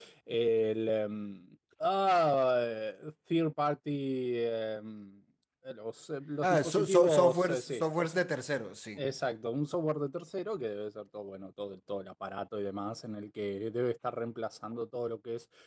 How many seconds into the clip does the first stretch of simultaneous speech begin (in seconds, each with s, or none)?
6.4 s